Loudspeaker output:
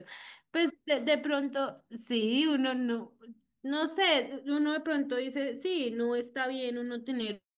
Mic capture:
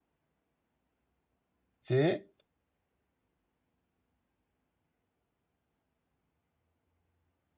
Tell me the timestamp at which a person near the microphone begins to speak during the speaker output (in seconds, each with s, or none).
1.8 s